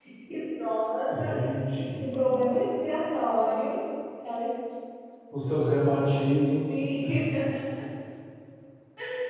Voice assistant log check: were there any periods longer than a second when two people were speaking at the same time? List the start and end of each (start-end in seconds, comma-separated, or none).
none